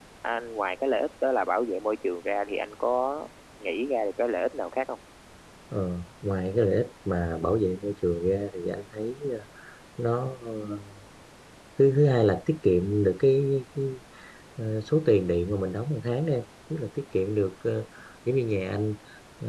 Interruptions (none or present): none